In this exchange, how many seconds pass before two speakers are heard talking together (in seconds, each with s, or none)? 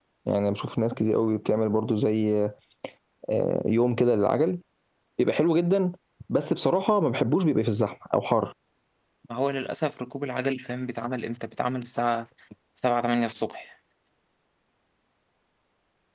none